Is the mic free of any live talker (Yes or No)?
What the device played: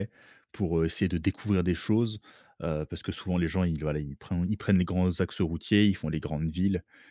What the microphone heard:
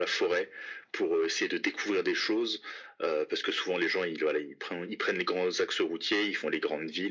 Yes